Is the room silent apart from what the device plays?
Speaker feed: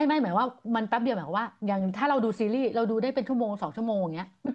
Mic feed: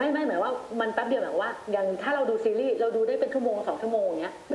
Yes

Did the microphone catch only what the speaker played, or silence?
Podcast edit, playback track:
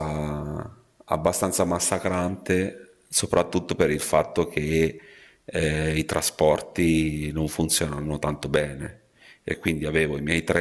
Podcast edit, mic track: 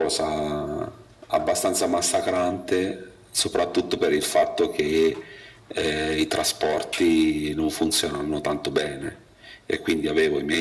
Yes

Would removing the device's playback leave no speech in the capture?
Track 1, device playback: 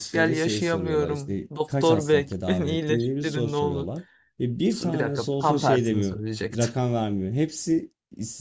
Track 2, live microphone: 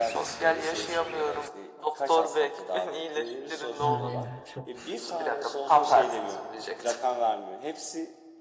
No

